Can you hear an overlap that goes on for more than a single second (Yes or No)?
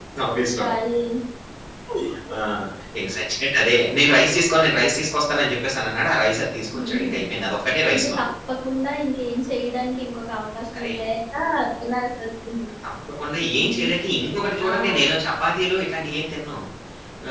No